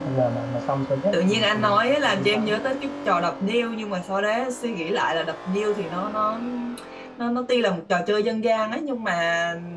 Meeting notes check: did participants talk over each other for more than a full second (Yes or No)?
Yes